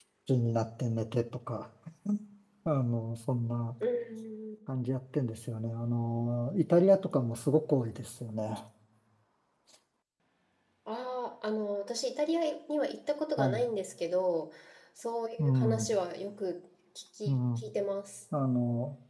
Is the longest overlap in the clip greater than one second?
No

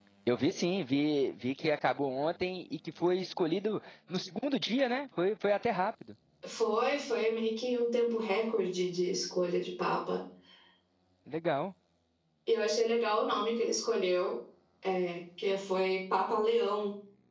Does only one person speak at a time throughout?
Yes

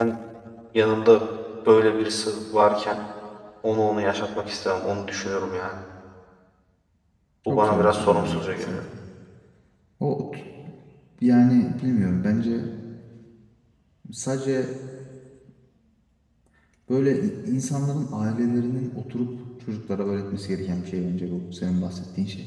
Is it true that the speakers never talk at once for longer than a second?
No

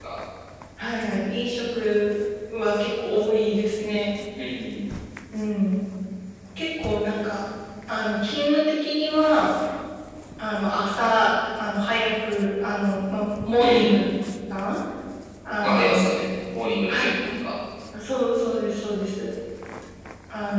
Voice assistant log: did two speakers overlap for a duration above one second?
No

